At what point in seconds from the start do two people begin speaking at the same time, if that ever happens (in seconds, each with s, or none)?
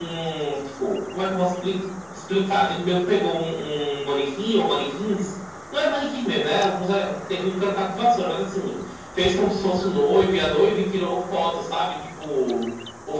none